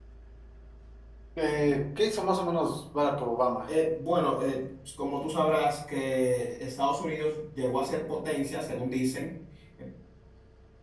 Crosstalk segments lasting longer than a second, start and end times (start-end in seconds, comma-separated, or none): none